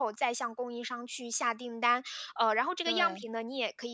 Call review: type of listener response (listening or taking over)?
listening